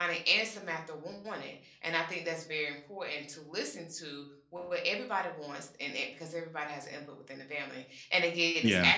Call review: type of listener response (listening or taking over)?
listening